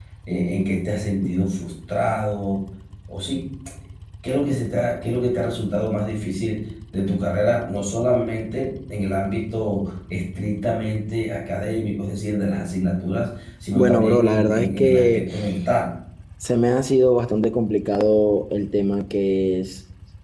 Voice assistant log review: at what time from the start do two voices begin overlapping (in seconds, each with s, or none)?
13.7 s